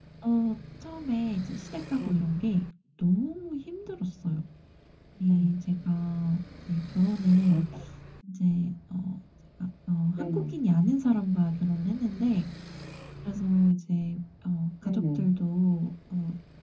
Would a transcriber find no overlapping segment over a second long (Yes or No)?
Yes